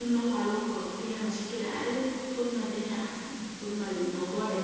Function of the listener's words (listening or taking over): taking over